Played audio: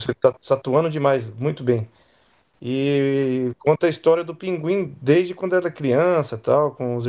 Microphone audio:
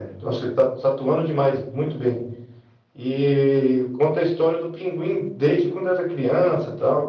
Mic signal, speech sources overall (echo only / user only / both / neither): echo only